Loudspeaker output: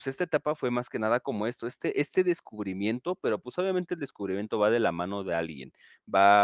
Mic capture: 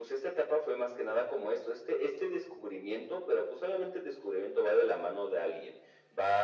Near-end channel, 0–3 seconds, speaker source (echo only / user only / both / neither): echo only